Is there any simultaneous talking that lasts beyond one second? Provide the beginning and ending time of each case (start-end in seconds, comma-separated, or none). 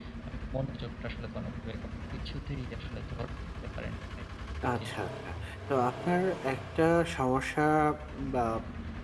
none